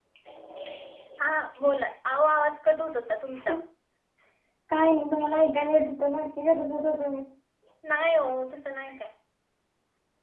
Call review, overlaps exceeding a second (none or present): none